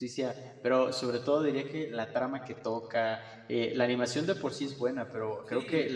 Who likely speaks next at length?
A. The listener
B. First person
B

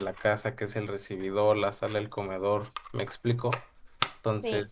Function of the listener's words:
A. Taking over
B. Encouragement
A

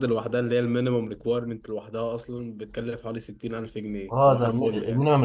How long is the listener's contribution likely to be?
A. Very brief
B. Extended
B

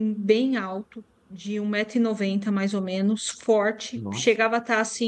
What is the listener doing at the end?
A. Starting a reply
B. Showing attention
B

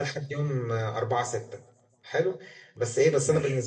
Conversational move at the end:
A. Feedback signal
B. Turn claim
A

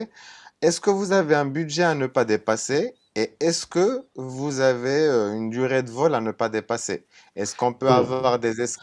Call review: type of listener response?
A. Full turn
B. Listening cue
B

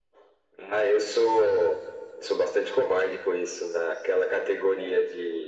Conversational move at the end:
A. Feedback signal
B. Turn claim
A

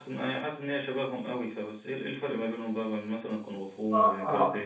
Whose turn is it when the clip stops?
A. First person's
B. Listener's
B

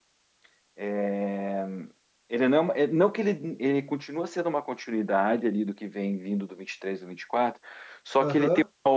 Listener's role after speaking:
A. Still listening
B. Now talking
A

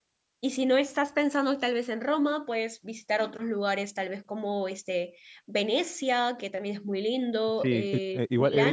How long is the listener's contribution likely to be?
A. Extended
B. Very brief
A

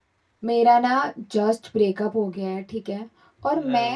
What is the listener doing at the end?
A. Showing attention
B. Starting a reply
A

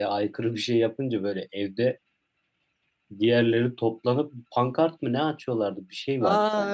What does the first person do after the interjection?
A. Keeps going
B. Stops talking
B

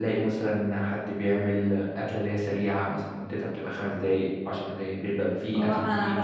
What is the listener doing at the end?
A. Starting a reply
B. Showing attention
A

